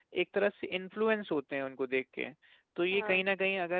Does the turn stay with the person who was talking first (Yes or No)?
Yes